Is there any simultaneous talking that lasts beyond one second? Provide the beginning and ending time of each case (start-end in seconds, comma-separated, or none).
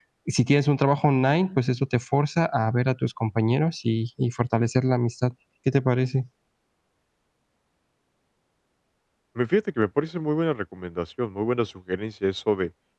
none